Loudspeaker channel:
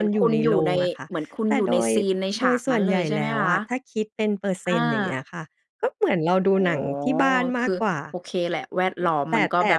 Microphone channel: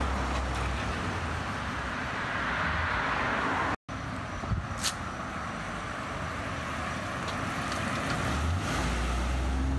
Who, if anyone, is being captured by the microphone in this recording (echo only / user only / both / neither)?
neither